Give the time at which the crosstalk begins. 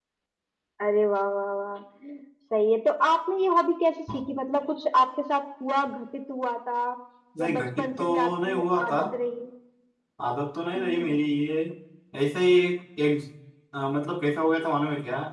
7.4 s

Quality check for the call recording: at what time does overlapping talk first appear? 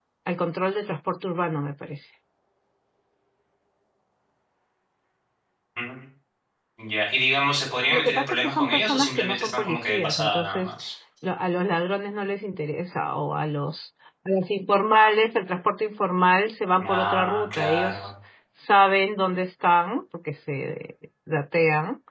7.9 s

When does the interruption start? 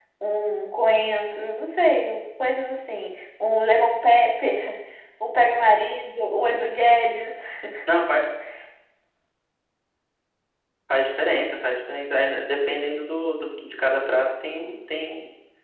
none

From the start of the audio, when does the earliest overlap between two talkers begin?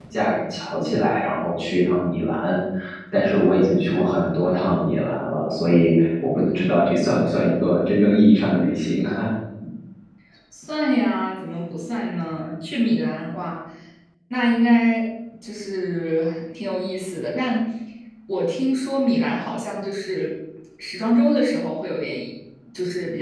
none

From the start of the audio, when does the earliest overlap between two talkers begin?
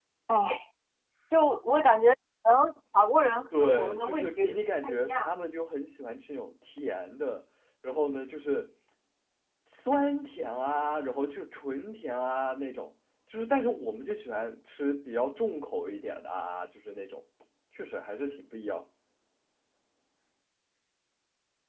3.5 s

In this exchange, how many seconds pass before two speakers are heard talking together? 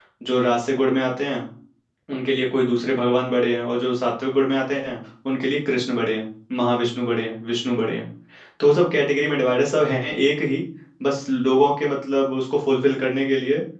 none

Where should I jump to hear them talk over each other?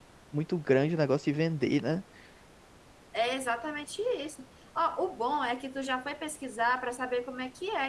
none

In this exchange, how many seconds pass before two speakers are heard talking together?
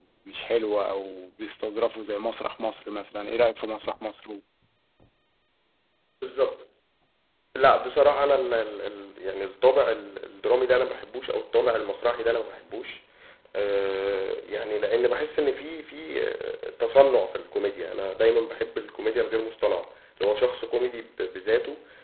none

